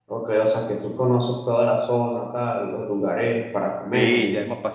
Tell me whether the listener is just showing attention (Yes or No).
No